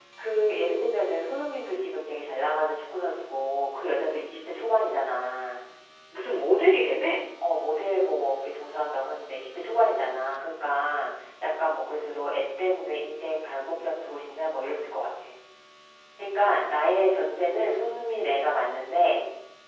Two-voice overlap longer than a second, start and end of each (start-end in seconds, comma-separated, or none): none